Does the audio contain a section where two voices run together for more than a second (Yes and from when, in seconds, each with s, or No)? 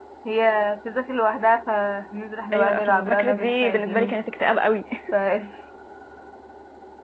Yes, from 2.5 s